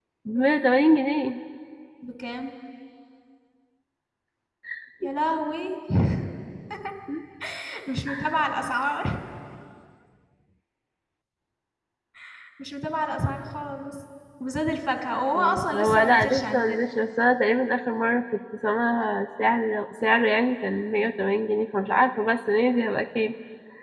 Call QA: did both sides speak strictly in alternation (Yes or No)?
No